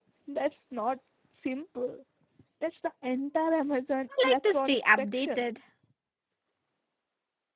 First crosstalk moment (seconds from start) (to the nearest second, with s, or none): 4 s